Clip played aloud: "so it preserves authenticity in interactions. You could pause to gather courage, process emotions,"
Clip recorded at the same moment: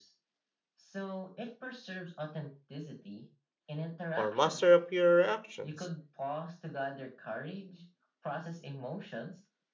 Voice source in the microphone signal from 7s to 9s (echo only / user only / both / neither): echo only